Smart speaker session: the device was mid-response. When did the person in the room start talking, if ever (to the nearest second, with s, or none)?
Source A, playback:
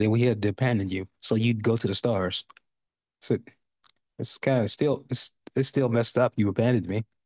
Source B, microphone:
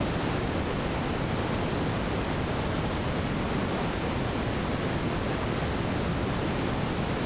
none